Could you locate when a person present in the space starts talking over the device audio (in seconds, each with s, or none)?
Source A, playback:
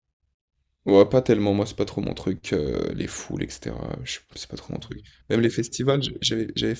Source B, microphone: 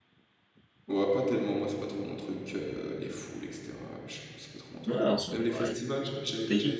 4.8 s